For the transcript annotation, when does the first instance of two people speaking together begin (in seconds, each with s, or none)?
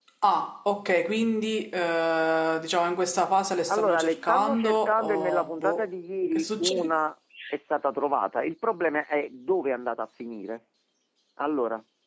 3.7 s